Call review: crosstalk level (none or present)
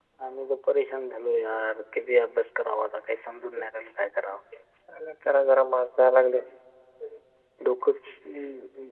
none